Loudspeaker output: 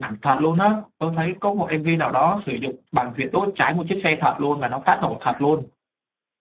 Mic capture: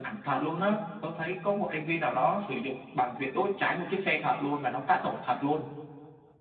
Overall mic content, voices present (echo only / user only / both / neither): echo only